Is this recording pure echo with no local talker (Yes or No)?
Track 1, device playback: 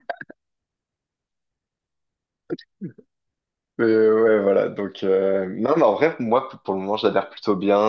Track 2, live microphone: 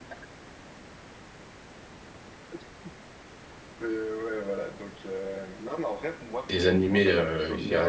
No